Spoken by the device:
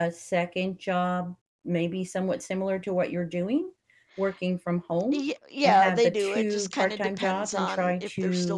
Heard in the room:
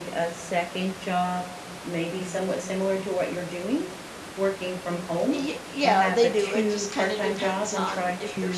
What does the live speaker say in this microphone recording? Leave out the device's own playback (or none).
none